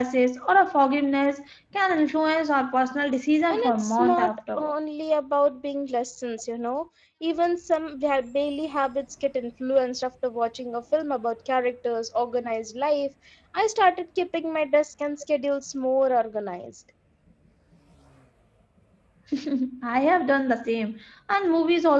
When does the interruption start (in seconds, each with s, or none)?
3.5 s